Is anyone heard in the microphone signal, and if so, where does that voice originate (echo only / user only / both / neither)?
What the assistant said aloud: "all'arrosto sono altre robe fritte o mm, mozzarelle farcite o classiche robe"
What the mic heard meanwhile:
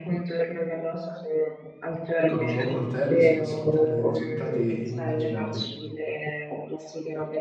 both